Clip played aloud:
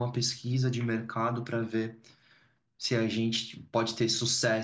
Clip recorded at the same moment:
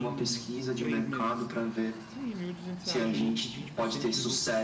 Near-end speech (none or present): present